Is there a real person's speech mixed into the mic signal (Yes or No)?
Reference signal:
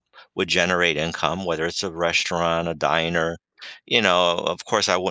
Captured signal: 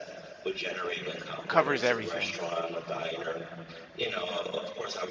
Yes